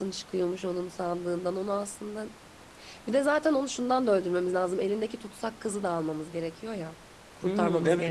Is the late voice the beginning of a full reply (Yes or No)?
Yes